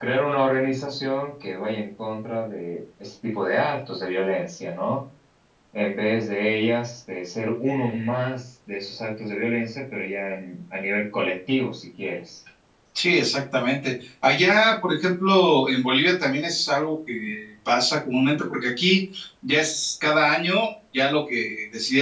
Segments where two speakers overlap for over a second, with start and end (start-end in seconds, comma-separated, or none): none